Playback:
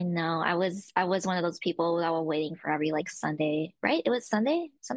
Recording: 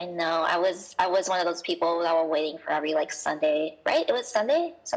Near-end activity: none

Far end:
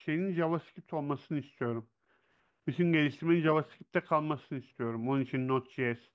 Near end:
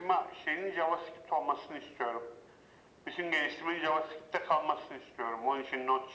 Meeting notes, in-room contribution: none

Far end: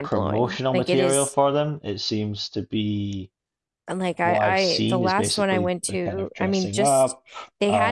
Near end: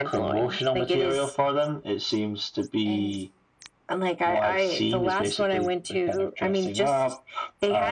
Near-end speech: present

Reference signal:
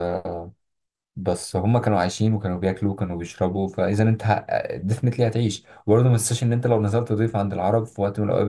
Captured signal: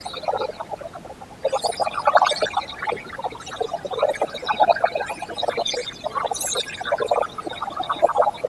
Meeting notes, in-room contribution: none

